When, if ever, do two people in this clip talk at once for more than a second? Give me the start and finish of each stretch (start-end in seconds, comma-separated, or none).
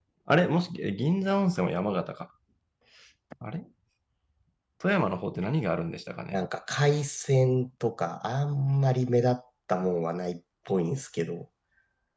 none